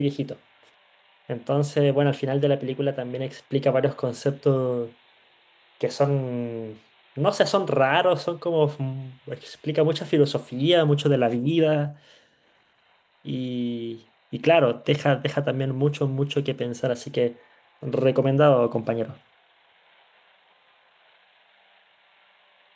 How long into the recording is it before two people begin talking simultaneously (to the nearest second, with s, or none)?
none